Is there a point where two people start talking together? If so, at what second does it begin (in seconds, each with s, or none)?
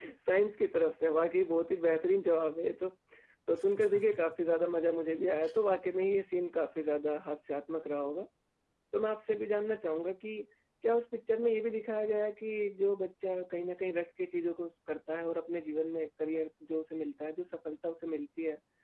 none